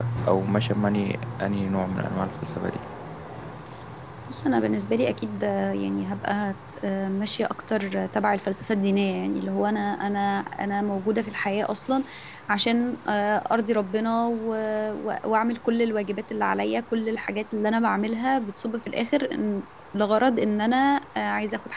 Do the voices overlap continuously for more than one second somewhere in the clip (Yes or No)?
No